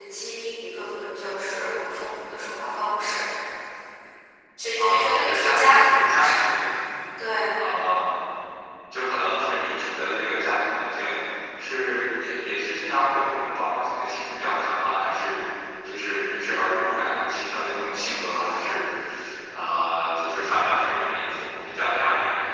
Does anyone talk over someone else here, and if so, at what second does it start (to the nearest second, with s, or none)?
5 s